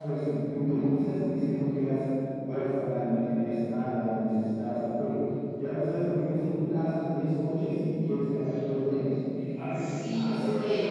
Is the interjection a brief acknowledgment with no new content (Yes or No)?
No